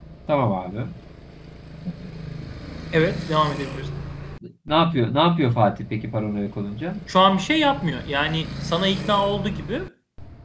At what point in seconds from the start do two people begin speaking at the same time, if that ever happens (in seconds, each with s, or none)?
none